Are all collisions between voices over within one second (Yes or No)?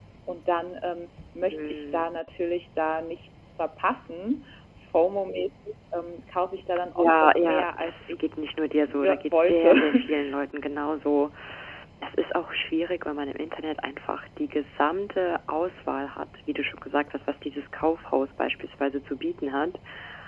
No